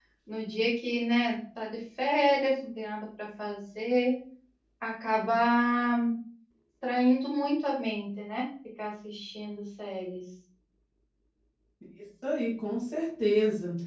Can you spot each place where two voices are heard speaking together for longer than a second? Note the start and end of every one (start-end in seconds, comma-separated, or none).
none